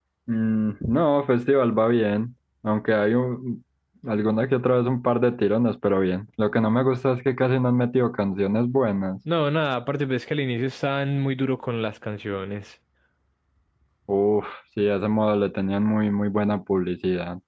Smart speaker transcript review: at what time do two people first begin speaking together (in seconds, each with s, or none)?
none